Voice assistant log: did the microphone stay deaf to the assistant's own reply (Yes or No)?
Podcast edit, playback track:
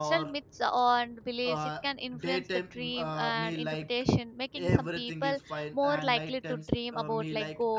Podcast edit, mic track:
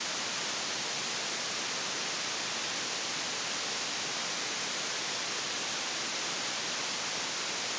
Yes